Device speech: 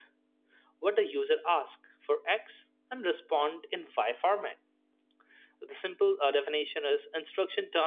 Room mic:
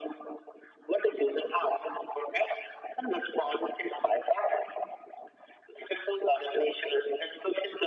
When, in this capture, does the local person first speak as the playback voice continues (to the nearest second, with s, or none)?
none